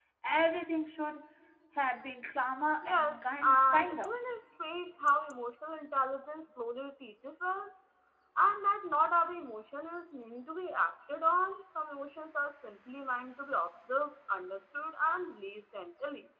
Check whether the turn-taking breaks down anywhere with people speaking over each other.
Yes, from 2.8 s

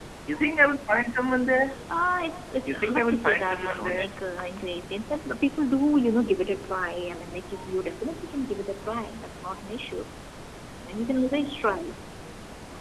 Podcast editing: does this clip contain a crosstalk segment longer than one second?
Yes, from 2.7 s

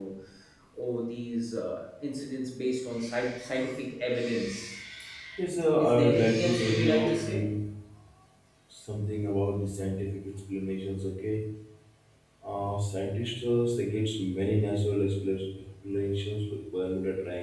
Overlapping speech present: Yes, from 5.8 s

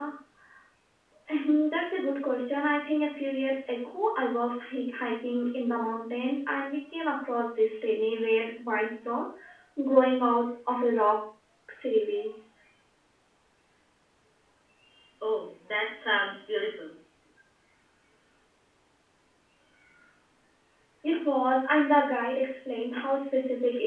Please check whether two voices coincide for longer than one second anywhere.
No

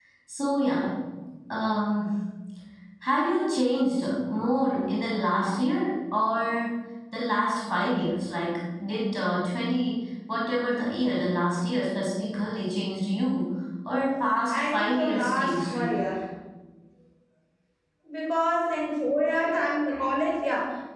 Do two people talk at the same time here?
Yes, from 14.5 s

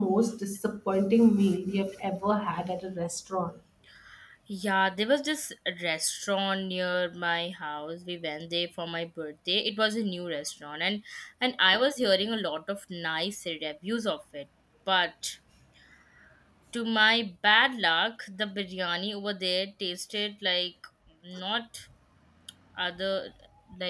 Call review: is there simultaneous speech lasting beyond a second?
No

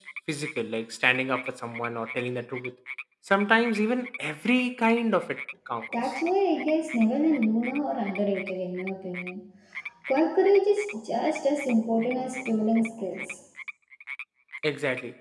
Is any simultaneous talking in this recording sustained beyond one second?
No

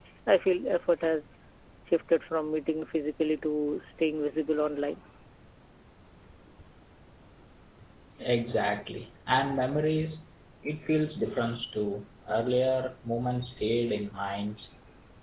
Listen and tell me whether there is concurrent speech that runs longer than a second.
No

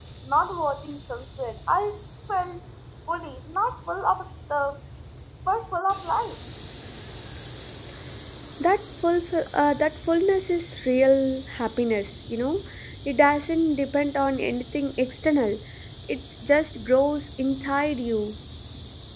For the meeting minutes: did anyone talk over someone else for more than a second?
No

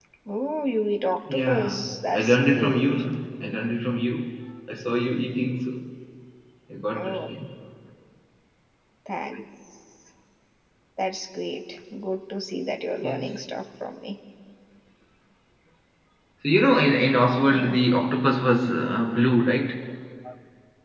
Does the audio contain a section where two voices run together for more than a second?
Yes, from 1.3 s

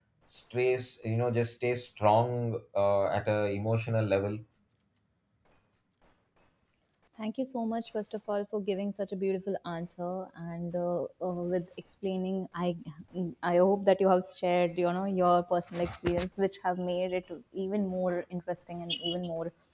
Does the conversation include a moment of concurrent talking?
No

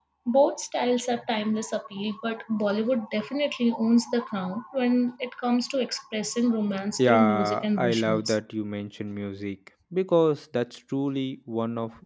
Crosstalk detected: Yes, from 7.0 s

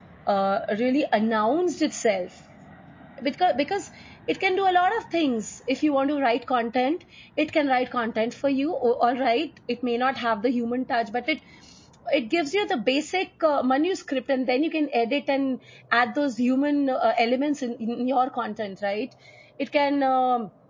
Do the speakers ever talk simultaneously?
No

